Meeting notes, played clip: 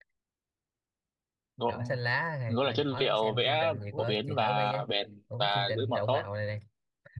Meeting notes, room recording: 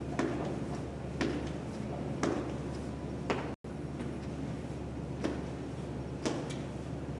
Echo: none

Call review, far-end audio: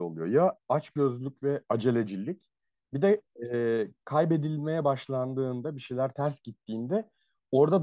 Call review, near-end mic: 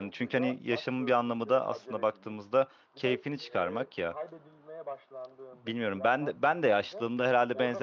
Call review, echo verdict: present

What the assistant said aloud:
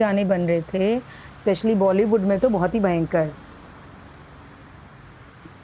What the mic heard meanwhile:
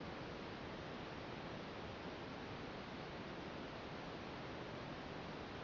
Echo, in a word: none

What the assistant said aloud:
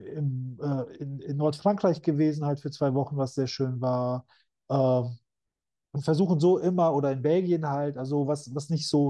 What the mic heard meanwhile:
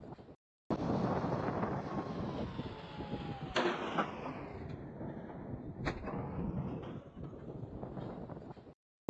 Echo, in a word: none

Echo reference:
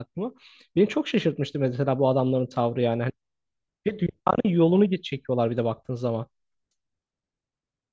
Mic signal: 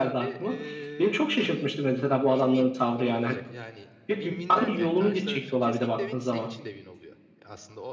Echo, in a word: present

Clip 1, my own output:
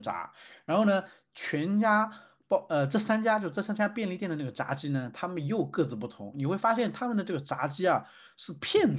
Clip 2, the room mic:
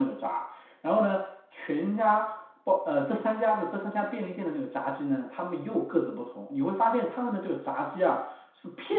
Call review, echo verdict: present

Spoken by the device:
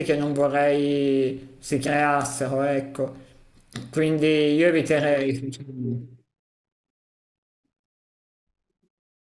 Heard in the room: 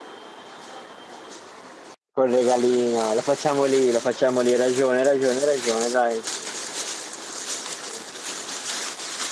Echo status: none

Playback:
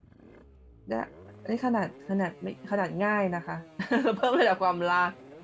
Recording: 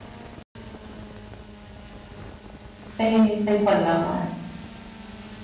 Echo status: none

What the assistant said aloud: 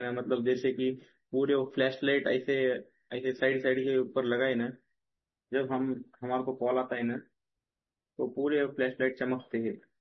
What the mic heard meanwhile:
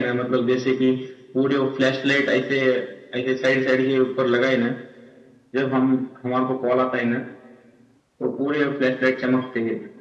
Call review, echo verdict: present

